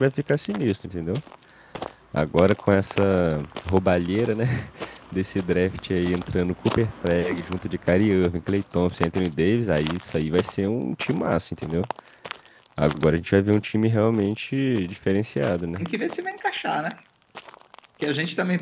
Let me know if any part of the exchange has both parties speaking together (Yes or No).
No